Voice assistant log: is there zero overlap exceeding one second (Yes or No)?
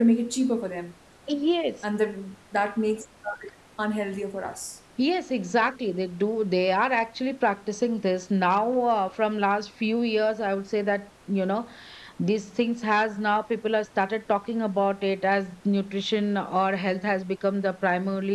Yes